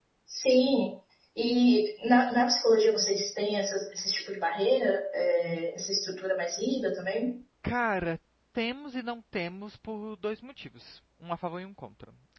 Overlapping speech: No

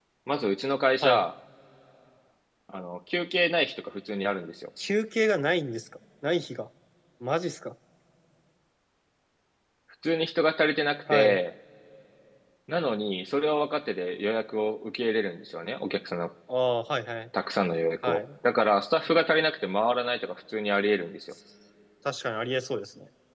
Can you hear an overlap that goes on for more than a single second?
No

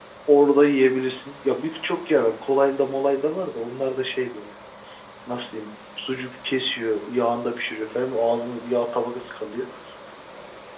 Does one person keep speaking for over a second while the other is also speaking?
No

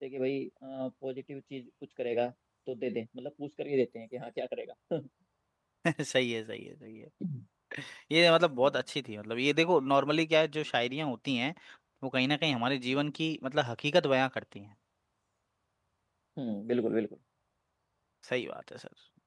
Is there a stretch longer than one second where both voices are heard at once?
No

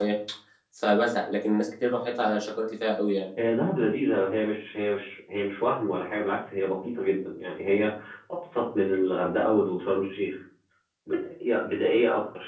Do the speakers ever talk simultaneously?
No

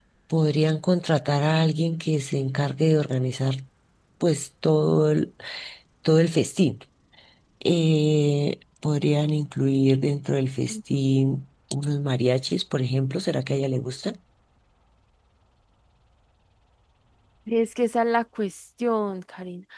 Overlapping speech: No

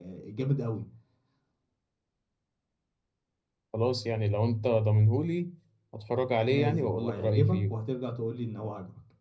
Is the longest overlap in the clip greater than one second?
Yes, from 6.4 s

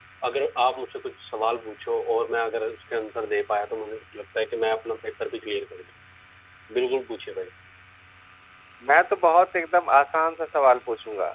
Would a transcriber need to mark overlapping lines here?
No

